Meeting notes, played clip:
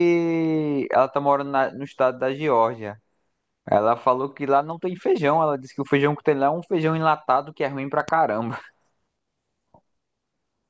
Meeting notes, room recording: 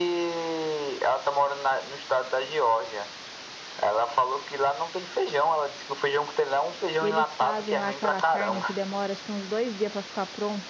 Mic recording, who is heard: both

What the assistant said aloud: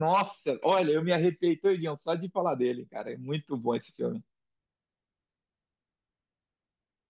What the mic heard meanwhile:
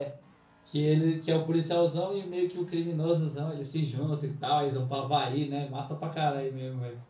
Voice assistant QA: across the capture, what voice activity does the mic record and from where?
user only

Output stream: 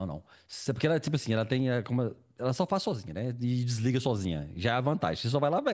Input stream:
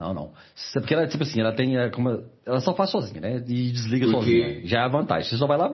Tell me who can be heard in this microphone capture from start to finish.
both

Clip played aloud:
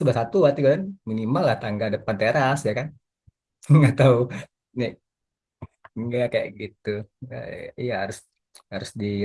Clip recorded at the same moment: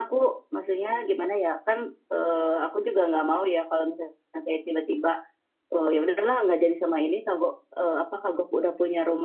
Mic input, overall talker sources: user only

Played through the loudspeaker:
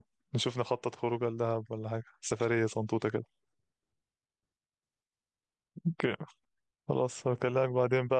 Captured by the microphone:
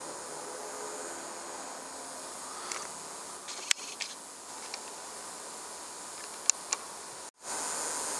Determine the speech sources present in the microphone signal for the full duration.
neither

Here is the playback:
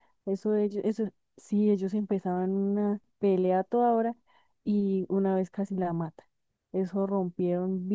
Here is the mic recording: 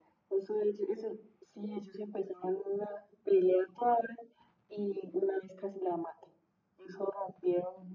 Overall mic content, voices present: echo only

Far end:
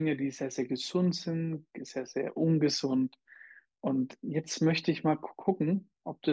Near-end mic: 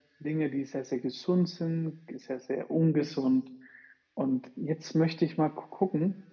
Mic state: echo only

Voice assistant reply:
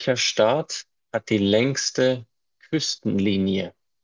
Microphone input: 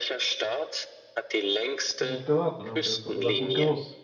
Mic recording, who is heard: both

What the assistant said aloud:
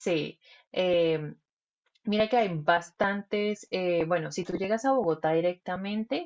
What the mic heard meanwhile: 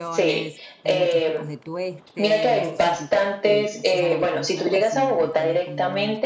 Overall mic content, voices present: both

